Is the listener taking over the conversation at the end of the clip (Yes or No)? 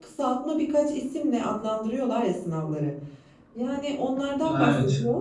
No